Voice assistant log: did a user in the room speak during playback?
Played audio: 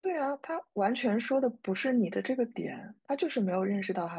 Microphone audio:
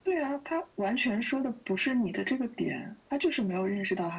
No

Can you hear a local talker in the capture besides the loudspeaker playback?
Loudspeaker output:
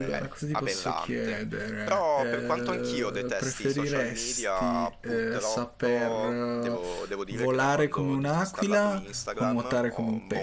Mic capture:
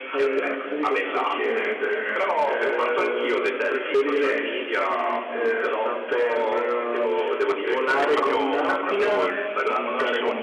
Yes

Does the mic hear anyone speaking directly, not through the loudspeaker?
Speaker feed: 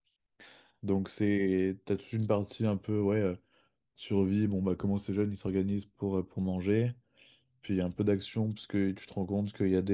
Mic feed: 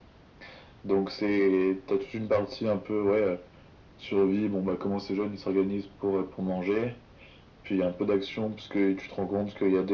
No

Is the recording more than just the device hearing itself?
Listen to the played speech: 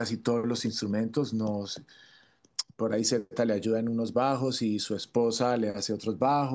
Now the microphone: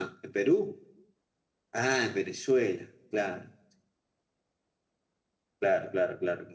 Yes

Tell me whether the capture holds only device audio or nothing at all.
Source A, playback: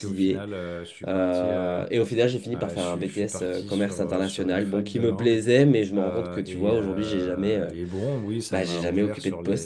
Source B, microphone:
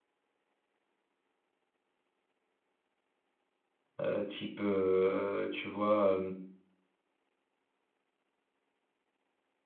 No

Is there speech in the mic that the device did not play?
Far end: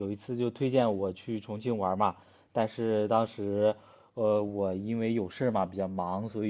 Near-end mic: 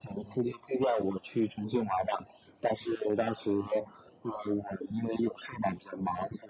No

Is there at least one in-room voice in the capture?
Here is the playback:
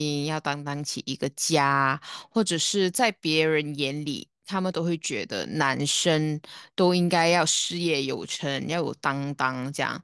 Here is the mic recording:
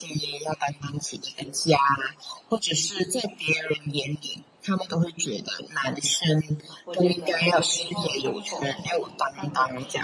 Yes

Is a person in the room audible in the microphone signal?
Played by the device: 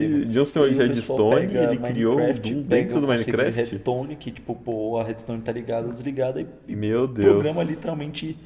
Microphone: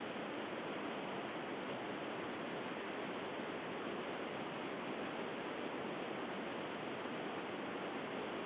No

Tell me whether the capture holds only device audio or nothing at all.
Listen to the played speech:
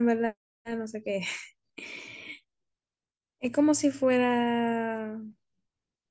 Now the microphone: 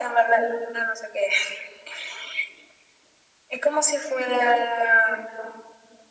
Yes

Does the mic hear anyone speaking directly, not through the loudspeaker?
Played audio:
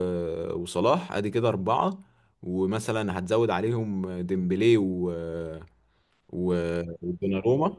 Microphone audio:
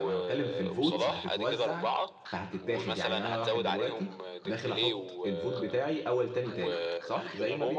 Yes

